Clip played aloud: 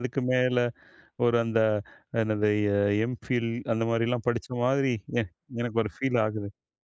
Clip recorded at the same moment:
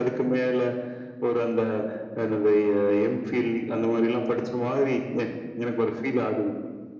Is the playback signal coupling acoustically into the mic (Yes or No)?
Yes